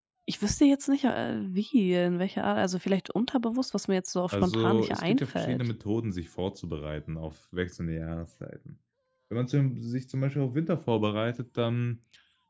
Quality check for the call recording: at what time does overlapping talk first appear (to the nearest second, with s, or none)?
4 s